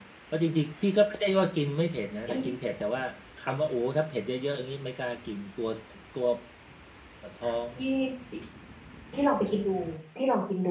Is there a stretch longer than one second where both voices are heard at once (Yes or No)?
No